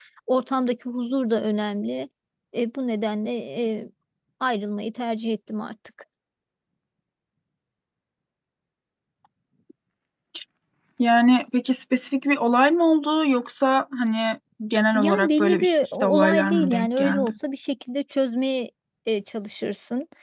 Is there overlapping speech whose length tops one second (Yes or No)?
Yes